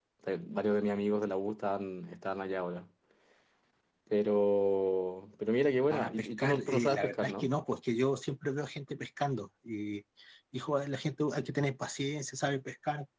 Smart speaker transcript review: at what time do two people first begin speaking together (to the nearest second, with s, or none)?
6 s